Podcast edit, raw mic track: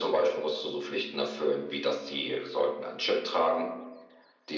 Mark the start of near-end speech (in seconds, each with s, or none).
none